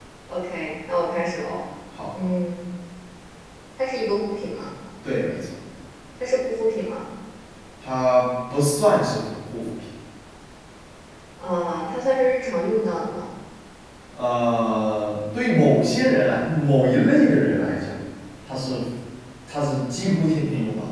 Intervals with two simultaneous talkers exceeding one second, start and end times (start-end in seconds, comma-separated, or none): none